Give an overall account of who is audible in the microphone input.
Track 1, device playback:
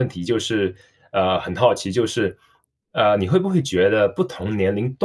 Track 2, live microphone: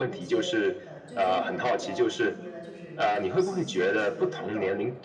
both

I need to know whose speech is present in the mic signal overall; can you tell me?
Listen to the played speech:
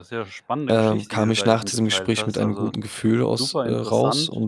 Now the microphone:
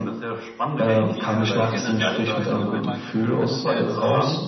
both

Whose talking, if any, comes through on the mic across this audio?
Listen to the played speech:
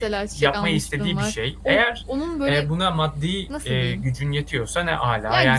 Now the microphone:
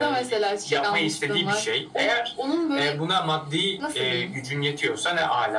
echo only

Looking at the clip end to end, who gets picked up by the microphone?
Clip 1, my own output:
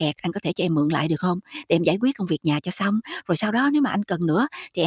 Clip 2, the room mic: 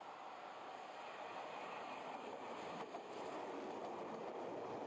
neither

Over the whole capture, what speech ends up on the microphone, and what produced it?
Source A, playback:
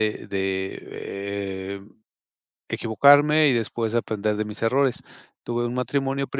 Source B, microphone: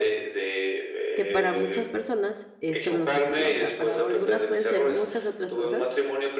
both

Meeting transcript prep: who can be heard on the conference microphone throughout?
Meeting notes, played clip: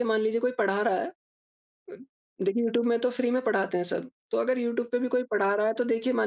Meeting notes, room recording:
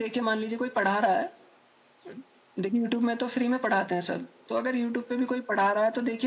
echo only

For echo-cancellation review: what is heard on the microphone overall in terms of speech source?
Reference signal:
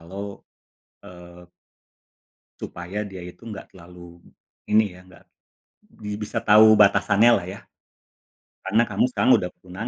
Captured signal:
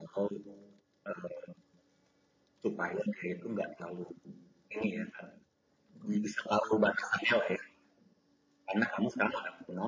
echo only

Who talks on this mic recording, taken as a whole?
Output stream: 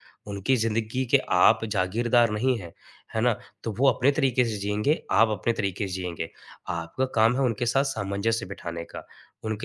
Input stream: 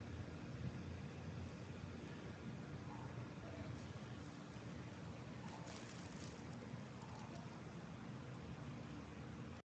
neither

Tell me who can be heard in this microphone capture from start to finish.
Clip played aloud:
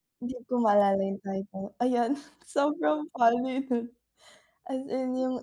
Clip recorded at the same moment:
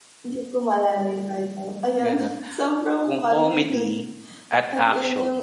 both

